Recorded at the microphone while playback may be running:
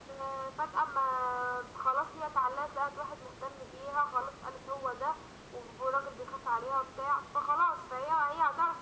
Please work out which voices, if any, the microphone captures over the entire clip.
echo only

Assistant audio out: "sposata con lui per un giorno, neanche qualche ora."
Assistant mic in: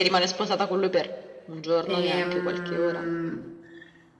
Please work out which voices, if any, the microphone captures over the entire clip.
both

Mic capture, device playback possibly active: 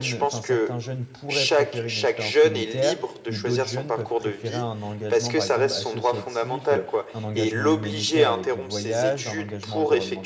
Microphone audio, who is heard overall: both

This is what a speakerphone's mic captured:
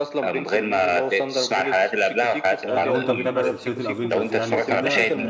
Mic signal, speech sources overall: both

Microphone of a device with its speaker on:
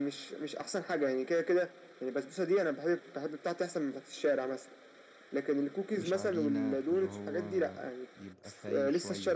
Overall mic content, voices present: both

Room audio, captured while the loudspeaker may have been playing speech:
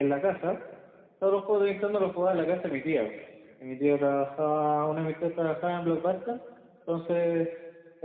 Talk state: echo only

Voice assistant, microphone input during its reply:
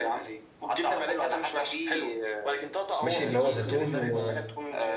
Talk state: both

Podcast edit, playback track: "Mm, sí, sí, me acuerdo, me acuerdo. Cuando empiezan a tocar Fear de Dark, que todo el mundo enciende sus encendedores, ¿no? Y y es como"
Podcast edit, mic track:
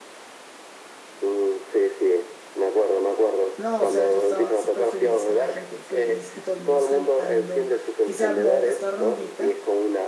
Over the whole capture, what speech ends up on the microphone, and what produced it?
both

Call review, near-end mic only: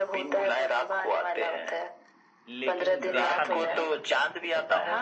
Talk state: both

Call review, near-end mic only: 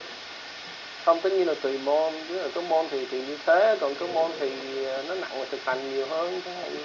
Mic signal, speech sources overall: echo only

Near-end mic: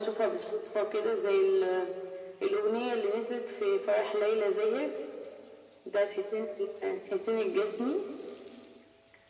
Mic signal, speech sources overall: echo only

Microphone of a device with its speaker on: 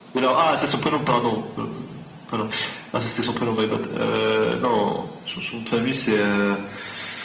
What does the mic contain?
echo only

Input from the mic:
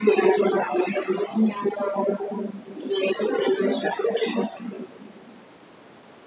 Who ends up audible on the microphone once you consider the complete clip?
echo only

